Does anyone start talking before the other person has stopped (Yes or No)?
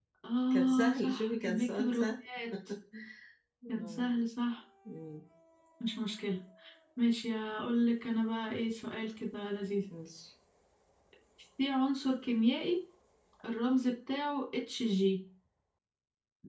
Yes